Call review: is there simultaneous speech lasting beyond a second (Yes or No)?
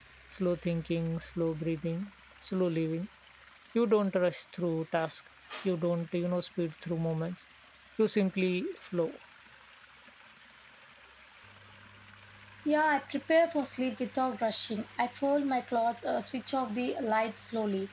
No